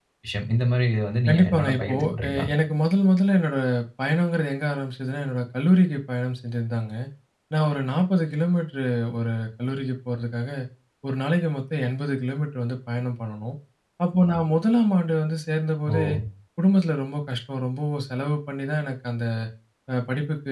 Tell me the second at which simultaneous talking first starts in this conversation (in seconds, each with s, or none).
1.3 s